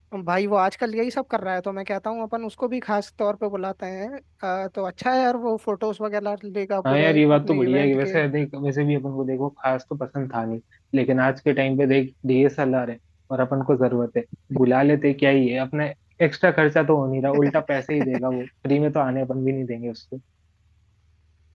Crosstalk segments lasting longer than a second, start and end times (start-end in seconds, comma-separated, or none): 6.9-8.2